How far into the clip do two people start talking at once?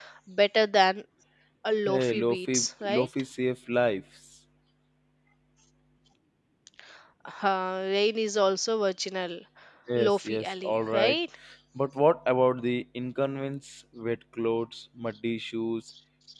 2 s

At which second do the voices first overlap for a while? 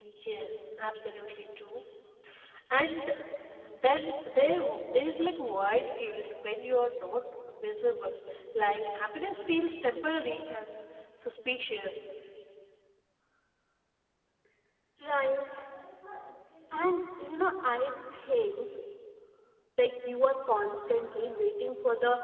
none

